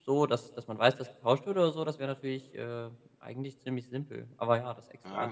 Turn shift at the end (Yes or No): Yes